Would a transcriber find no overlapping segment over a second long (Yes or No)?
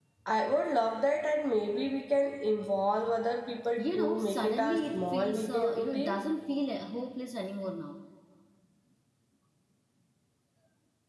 No